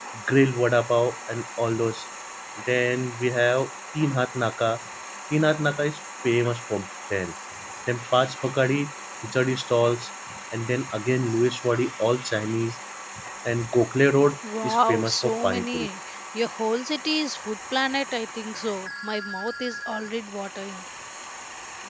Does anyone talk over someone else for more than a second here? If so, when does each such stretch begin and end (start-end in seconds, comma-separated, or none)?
14.6-15.9